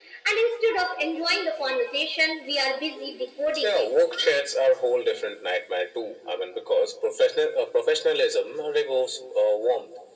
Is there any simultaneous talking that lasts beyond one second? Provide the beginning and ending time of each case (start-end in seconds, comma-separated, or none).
none